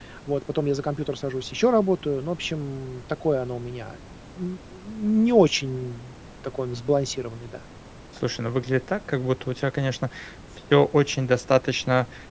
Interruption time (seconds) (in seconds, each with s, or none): none